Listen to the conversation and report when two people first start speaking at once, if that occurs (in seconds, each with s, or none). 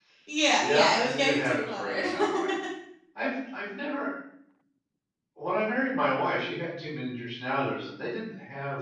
0.6 s